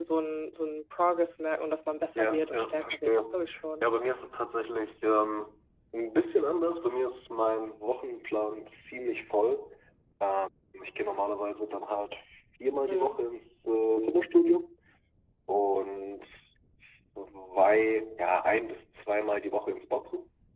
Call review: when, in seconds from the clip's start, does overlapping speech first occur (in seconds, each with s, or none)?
2.1 s